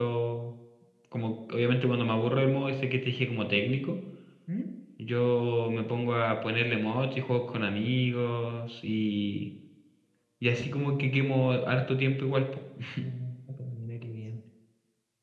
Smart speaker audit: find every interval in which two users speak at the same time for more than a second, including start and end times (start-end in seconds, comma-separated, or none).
none